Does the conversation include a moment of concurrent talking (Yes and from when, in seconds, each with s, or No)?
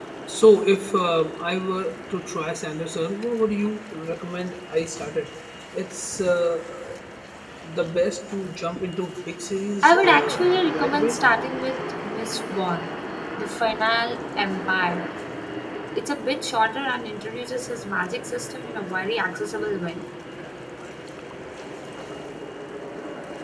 Yes, from 9.8 s